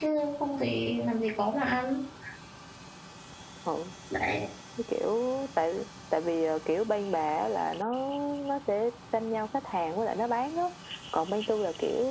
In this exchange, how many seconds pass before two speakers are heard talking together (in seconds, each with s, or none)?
none